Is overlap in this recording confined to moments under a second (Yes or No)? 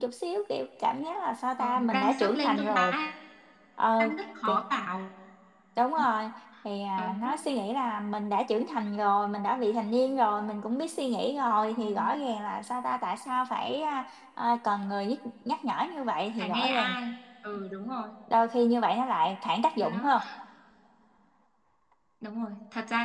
No